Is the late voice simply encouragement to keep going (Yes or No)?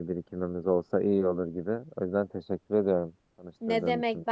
No